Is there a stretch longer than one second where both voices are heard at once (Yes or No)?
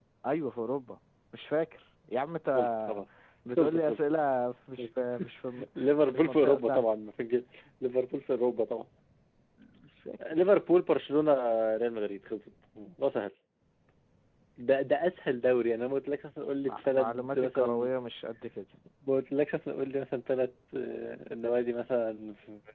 Yes